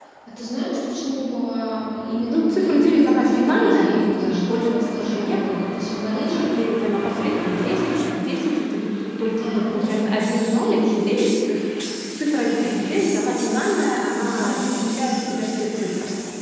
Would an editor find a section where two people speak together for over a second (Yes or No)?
Yes